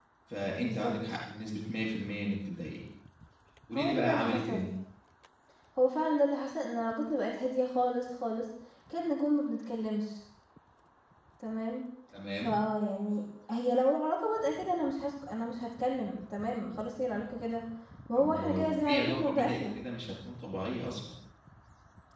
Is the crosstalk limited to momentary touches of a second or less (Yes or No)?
No